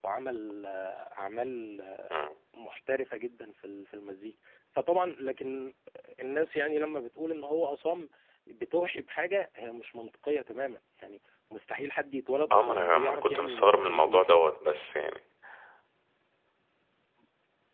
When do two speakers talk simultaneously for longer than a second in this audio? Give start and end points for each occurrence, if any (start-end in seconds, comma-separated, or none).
12.5-14.2